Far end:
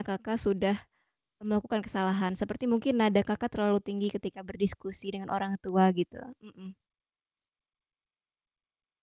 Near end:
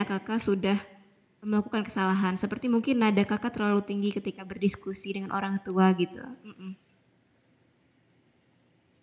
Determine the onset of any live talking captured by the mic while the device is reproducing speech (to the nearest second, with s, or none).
none